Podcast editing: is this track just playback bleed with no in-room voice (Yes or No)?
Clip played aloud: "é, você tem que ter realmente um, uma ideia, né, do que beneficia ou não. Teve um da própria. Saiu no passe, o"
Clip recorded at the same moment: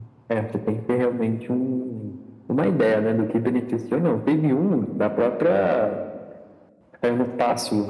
Yes